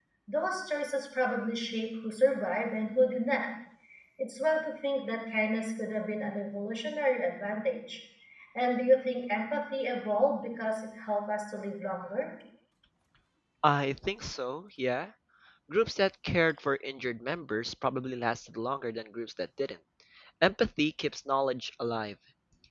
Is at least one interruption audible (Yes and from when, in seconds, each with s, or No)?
No